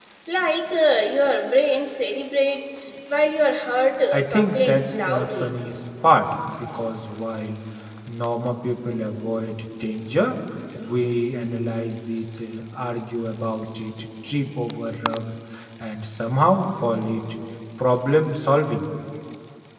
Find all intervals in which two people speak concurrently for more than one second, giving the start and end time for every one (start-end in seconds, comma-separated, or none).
4.1-5.6